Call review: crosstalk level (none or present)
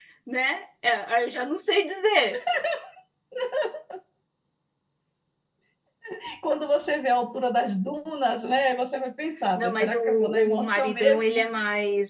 present